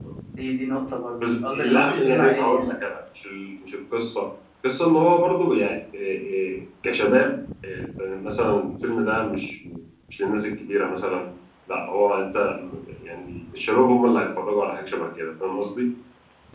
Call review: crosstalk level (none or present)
present